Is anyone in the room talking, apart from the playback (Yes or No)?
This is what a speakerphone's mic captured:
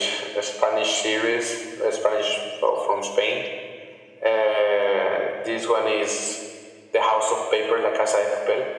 No